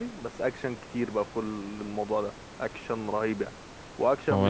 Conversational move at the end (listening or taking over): listening